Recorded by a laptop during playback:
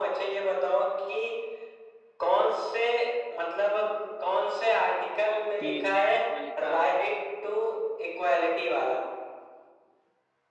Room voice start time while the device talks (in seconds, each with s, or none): 5.6 s